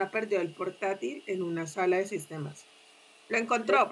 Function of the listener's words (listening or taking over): listening